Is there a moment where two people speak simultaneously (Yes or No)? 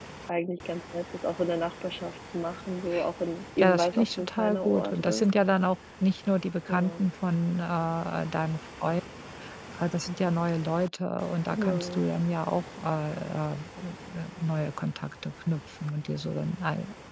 Yes